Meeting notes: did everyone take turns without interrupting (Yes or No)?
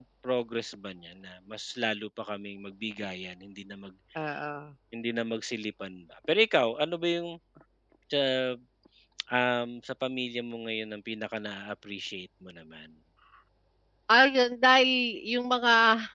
Yes